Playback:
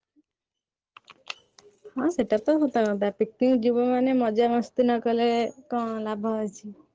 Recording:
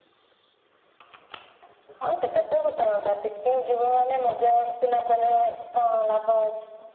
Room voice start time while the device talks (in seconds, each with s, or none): none